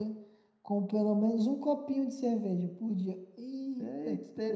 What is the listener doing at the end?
taking over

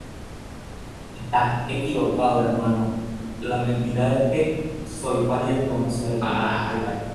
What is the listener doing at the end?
taking over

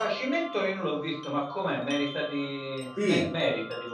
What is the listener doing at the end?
taking over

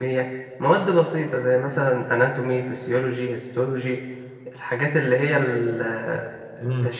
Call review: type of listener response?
listening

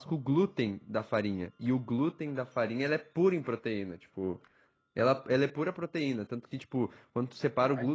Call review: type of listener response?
listening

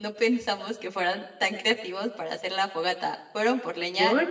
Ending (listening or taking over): listening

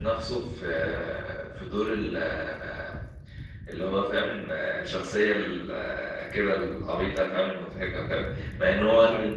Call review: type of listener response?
listening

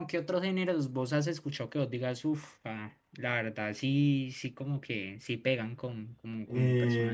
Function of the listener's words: taking over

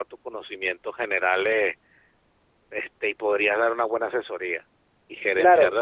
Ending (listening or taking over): listening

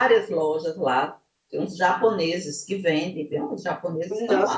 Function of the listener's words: taking over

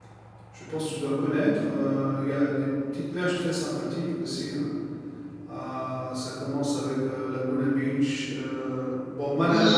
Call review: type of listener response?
taking over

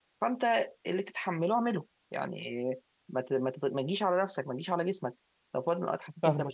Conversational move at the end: taking over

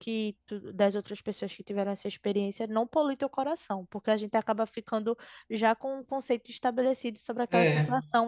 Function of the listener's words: listening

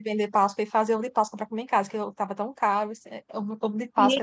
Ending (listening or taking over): taking over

